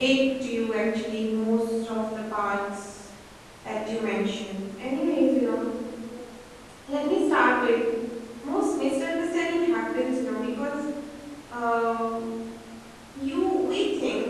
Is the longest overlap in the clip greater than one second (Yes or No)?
No